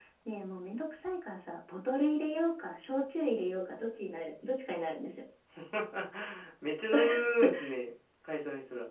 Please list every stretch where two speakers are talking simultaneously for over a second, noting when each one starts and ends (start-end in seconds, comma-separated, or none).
none